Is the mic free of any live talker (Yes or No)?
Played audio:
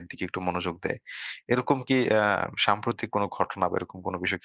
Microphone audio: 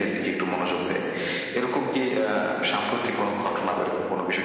Yes